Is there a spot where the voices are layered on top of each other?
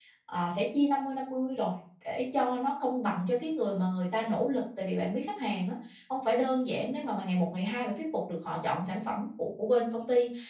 No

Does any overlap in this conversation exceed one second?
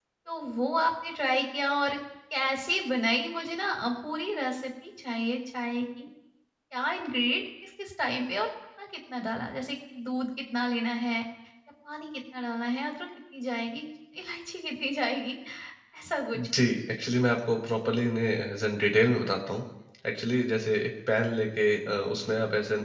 No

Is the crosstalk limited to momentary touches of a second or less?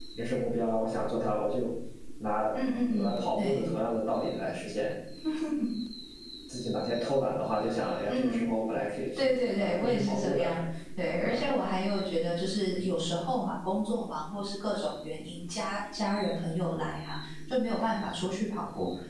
No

